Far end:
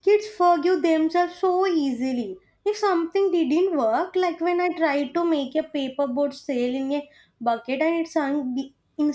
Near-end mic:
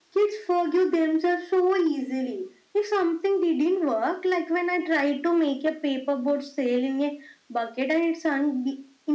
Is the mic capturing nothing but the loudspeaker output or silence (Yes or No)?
Yes